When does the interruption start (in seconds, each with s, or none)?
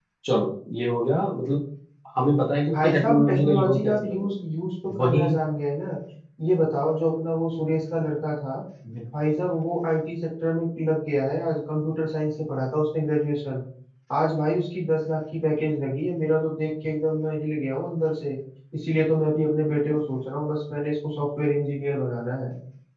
2.7 s